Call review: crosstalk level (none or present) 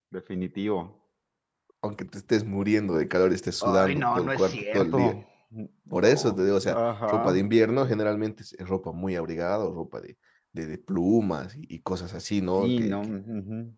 present